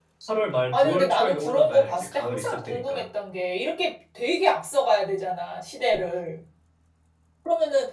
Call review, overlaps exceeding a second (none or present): present